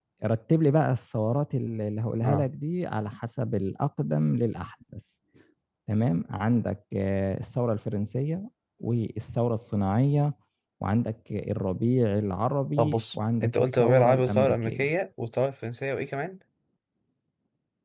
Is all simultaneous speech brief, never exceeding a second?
No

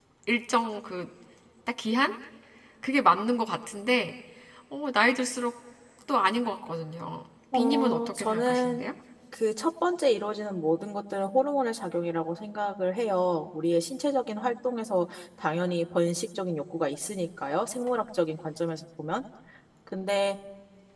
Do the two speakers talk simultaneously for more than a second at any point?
Yes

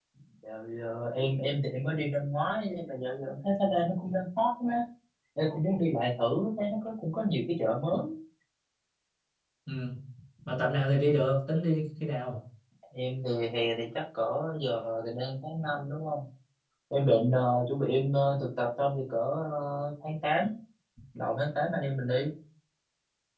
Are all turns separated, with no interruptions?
Yes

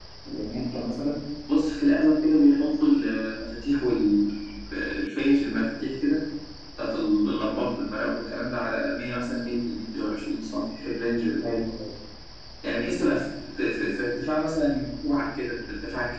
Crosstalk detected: No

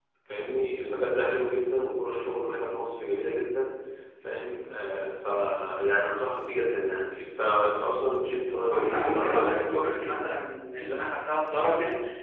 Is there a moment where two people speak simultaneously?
Yes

